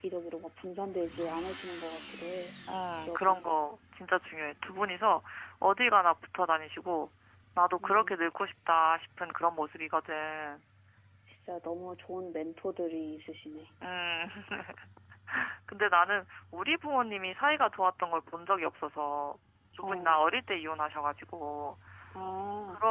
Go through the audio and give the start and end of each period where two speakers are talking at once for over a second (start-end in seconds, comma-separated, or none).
none